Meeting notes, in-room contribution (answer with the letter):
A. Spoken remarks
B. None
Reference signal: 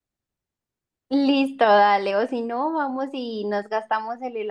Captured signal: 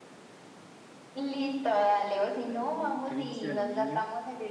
A